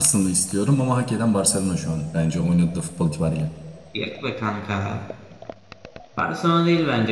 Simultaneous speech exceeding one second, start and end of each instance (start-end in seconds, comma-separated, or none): none